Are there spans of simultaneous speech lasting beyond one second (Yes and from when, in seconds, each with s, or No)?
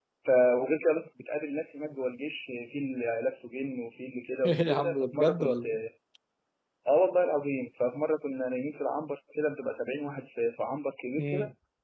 Yes, from 4.5 s